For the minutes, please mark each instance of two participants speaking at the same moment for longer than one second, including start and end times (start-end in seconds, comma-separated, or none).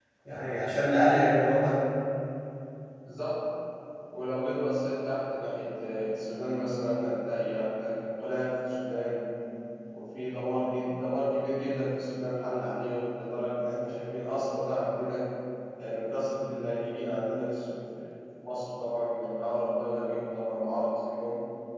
none